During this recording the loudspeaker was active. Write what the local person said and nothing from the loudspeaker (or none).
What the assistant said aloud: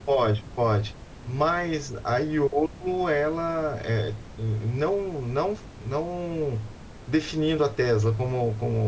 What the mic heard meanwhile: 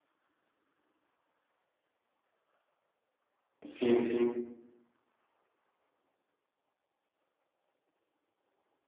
Sim, sim.